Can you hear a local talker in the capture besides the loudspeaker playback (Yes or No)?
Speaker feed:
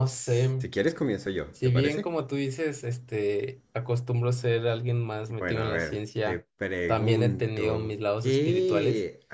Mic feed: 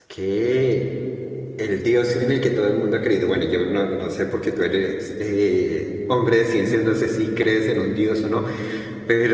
Yes